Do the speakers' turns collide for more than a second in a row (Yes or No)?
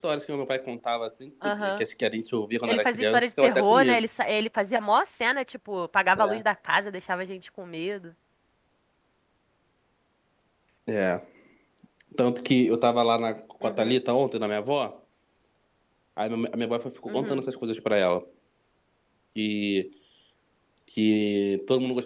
Yes